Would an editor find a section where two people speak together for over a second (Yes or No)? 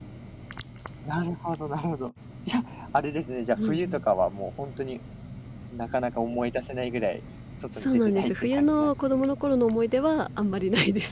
Yes